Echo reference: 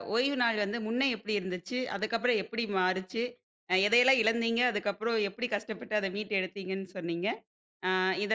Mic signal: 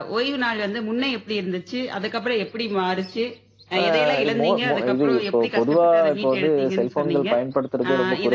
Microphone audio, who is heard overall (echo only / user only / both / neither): both